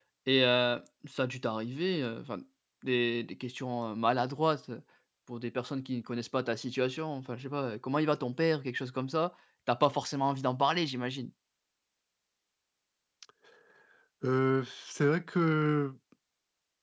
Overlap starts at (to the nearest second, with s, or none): none